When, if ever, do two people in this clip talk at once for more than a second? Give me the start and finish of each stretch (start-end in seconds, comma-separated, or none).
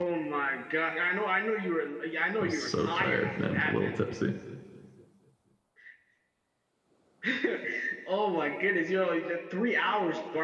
2.4-3.9